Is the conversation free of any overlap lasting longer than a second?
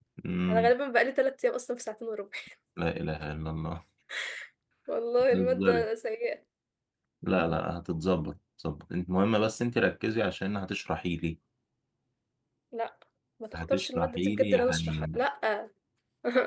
No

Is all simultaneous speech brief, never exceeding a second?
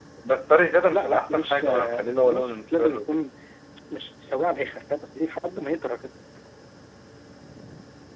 No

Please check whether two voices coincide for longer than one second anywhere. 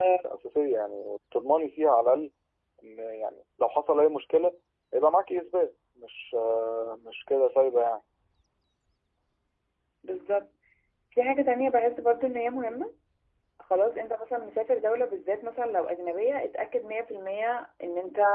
No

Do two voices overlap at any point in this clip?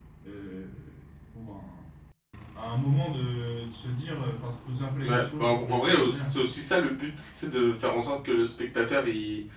Yes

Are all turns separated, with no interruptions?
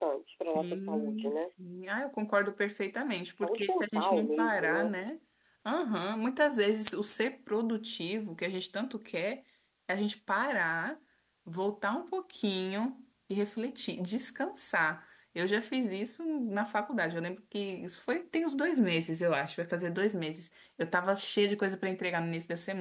No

